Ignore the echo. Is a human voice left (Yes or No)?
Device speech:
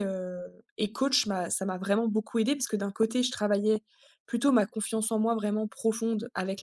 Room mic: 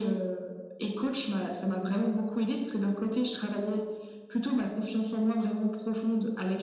No